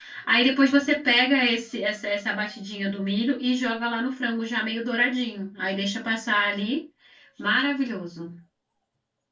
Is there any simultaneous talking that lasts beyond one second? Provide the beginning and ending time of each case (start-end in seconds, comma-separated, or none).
none